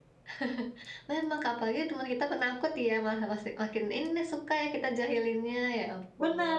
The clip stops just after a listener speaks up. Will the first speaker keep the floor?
No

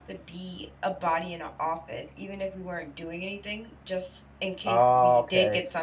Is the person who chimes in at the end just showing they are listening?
Yes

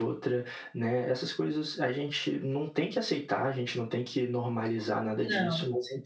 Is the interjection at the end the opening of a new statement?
No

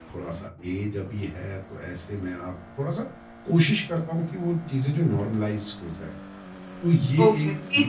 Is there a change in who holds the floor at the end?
Yes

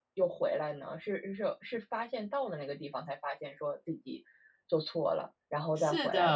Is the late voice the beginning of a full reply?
Yes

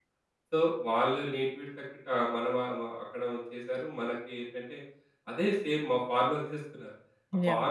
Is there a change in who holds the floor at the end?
No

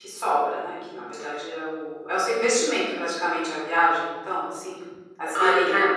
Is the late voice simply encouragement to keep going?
No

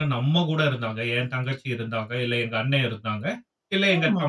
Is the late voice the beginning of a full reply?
No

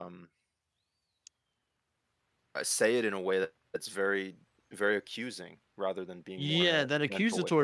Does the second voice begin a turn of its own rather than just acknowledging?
Yes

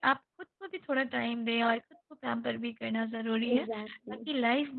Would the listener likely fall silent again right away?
Yes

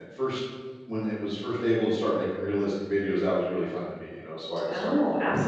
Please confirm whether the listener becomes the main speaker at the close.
Yes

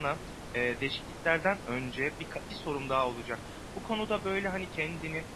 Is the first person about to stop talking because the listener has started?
No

